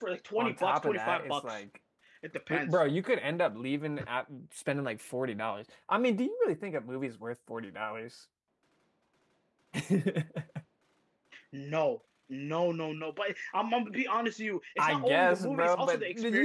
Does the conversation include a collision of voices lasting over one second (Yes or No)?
Yes